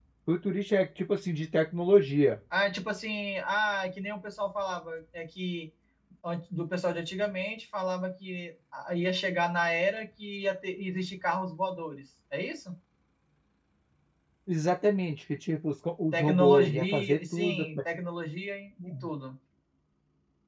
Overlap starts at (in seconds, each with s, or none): 16.1 s